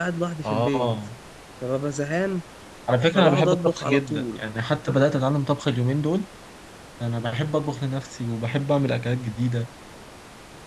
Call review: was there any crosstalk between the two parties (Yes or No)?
Yes